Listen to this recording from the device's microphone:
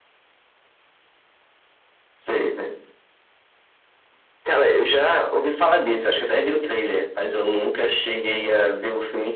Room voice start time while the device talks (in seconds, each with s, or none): none